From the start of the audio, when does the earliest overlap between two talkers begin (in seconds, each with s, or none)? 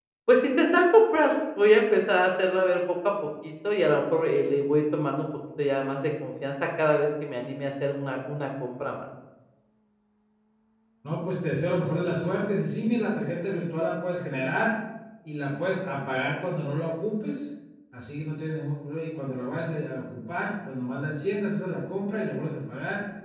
none